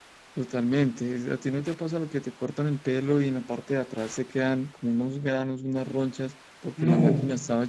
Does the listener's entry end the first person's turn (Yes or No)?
No